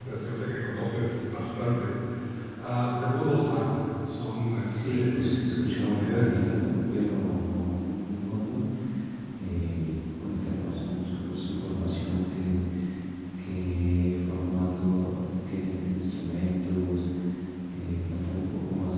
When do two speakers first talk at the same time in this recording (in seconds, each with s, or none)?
4.7 s